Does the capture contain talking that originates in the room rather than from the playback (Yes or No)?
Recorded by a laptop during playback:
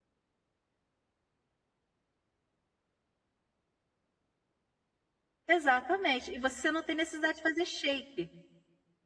Yes